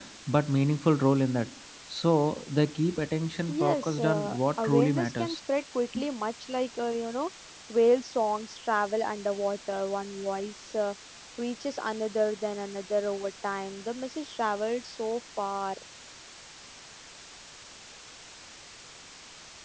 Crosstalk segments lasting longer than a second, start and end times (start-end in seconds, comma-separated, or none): 3.5-5.4